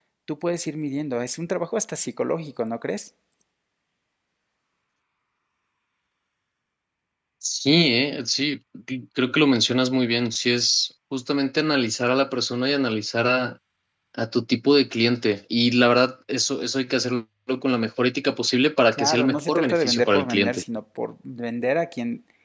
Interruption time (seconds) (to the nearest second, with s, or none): 19 s